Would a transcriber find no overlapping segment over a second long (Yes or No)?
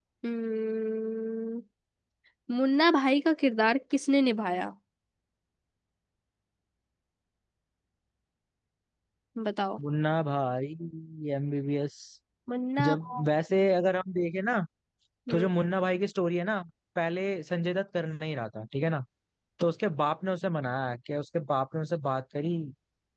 Yes